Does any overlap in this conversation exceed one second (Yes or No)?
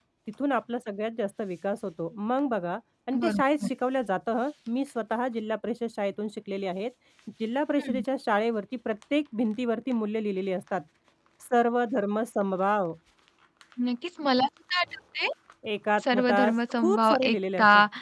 Yes